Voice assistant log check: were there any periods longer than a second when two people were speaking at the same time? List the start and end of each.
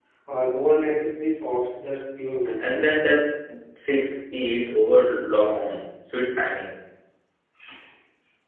none

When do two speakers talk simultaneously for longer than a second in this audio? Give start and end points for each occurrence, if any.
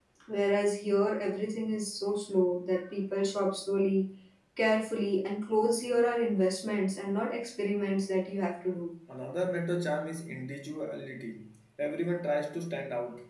none

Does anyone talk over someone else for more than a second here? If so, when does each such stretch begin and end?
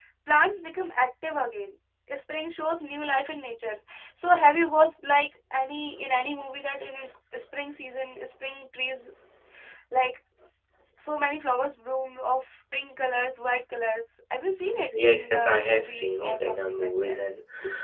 15.0-17.2

